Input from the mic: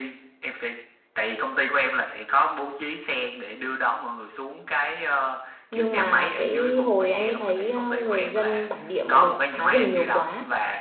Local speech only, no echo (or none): nhưng mà cái hồi anh ấy thấy ờ, người dân bản địa mọi người phá rừng nhiều quá